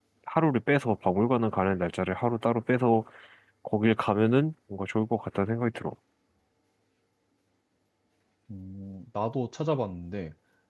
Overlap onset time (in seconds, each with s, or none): none